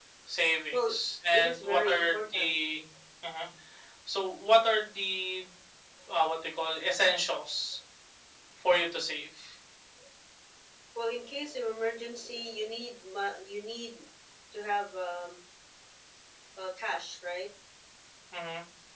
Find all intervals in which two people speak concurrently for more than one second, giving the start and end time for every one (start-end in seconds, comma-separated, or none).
1.3-2.6